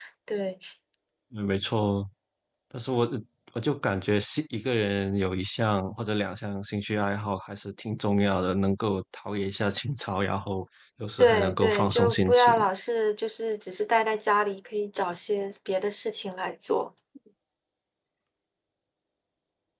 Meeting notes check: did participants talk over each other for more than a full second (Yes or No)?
Yes